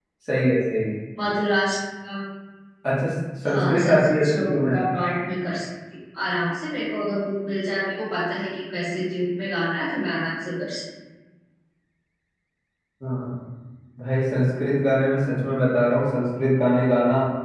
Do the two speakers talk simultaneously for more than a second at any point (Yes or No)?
Yes